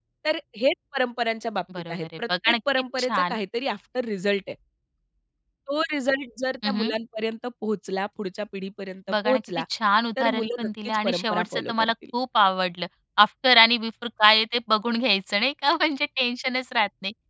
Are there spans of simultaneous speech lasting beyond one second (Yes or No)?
Yes